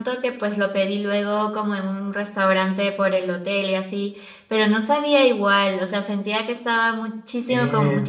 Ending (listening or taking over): listening